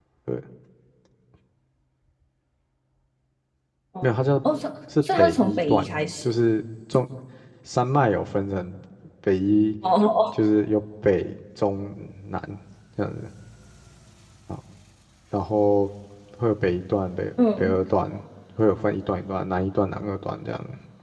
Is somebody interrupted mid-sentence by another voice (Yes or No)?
Yes